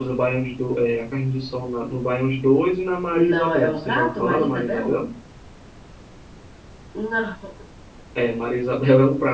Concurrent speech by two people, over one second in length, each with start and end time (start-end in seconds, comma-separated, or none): 3.1-5.0